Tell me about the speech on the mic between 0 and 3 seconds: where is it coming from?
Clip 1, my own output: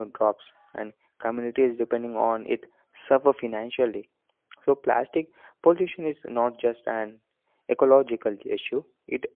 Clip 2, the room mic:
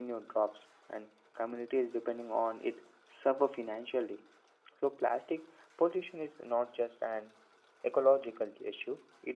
echo only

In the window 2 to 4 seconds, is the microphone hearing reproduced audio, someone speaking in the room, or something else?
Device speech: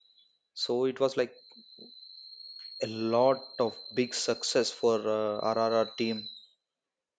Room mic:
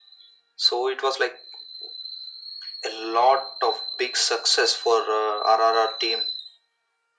echo only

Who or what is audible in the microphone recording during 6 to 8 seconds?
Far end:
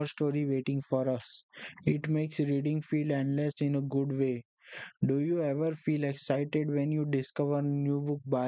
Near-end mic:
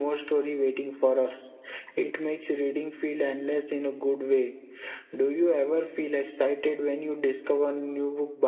echo only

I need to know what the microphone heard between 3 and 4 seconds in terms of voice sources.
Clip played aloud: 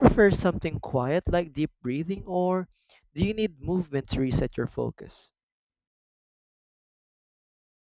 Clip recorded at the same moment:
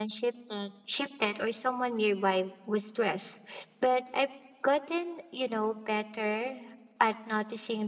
user only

